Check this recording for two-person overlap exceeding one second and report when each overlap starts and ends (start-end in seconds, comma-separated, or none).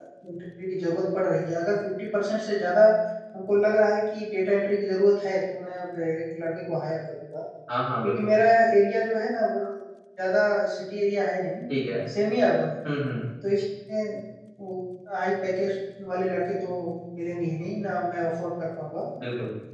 none